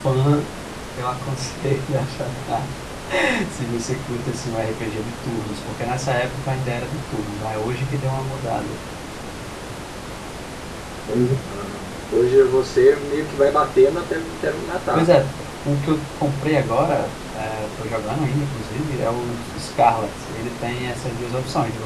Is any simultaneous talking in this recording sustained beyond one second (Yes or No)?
No